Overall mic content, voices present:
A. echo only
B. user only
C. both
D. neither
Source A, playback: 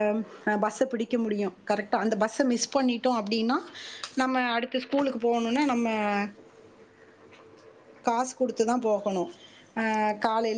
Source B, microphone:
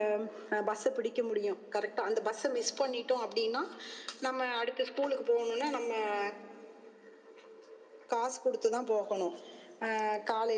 A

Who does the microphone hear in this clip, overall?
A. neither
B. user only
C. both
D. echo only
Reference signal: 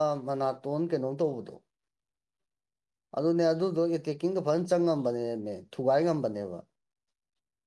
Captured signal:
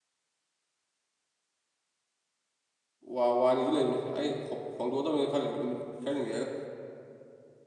B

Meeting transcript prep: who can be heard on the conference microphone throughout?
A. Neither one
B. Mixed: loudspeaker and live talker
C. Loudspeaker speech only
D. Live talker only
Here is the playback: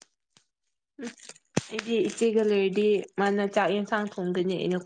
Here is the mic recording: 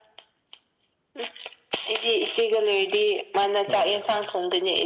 B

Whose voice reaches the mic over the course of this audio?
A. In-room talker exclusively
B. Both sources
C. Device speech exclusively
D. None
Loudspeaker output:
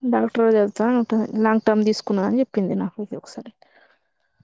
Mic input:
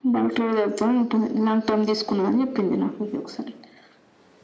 C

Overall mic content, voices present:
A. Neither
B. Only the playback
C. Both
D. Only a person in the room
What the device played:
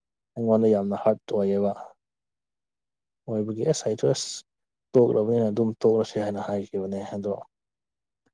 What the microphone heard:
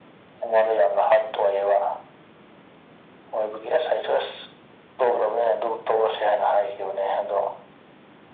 B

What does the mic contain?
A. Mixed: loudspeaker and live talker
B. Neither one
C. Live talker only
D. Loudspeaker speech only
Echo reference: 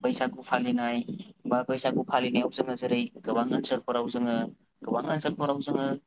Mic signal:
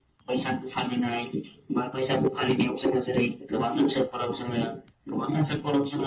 D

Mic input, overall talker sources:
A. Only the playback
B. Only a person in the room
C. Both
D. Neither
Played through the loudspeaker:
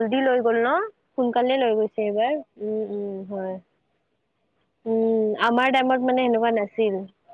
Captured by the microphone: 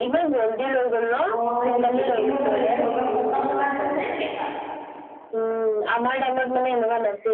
C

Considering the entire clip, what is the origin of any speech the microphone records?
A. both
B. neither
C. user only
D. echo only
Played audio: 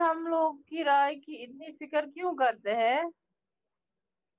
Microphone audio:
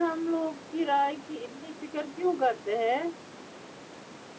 D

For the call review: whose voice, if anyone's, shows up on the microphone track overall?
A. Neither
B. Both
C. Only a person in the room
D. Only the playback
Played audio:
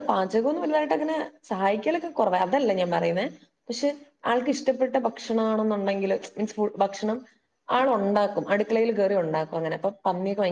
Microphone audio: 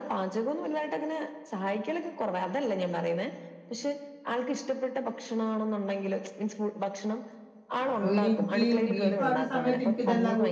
B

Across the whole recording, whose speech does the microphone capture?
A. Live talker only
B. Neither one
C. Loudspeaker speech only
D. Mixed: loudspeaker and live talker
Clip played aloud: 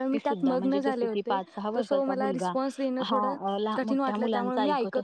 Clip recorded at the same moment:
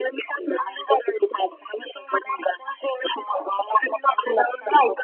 C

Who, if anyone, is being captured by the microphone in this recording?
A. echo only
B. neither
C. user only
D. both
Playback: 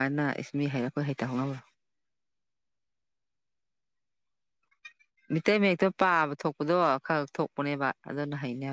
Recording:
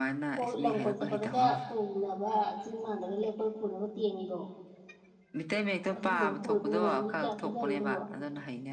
D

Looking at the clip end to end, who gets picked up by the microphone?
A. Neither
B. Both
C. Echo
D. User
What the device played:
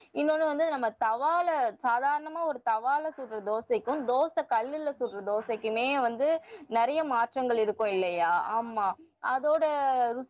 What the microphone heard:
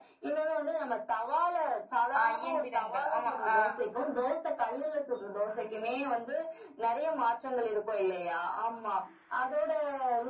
B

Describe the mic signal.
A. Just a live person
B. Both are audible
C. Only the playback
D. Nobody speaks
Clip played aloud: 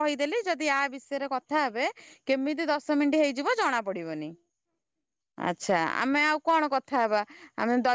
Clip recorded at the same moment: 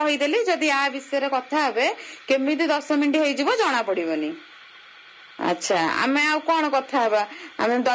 C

